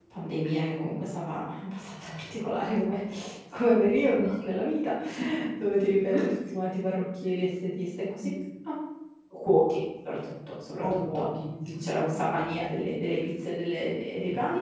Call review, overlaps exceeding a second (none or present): none